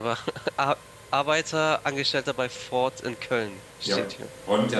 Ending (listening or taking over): taking over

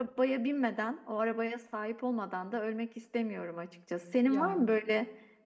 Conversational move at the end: listening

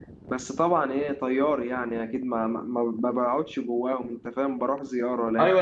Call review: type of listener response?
taking over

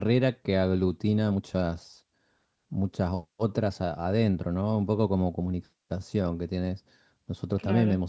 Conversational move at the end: listening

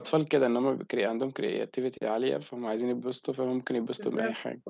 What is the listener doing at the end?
taking over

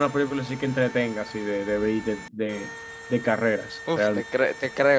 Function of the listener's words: taking over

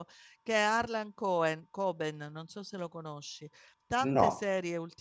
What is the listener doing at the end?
listening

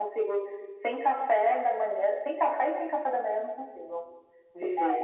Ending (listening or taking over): taking over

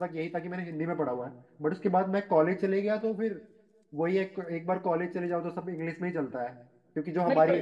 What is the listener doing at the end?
taking over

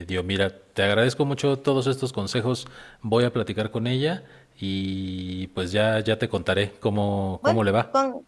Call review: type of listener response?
taking over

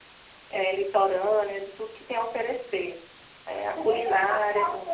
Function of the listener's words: taking over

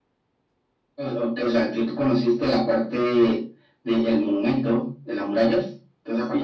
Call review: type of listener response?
taking over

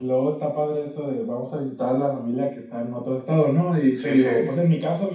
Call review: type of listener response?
listening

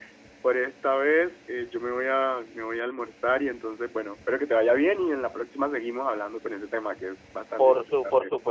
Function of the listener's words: taking over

